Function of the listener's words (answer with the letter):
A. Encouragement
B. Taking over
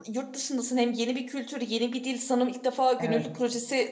A